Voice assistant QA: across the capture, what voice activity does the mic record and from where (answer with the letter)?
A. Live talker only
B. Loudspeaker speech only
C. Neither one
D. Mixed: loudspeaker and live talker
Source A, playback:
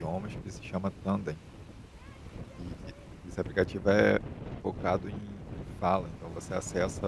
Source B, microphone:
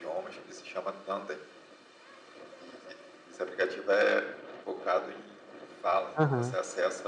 D